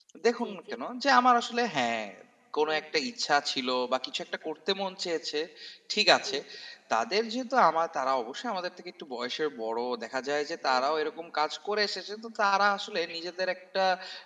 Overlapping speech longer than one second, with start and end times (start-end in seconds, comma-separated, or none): none